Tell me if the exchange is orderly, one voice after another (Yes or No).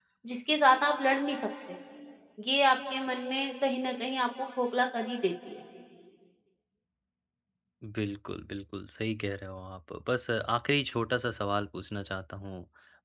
Yes